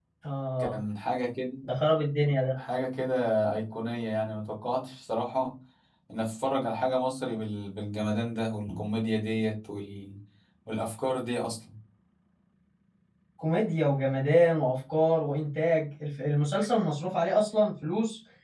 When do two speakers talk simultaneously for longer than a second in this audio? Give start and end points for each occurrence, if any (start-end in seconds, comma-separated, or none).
none